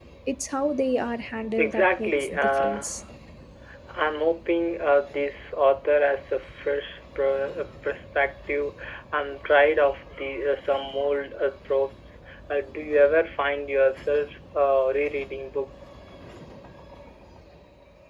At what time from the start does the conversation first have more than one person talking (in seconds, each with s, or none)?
1.6 s